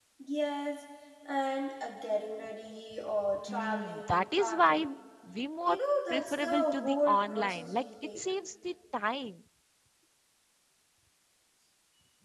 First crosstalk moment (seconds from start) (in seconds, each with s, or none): 3.5 s